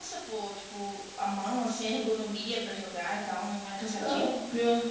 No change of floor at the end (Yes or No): No